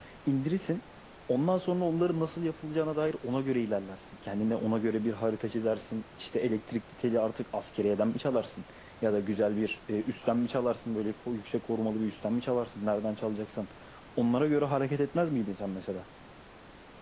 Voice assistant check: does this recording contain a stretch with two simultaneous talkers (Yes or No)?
No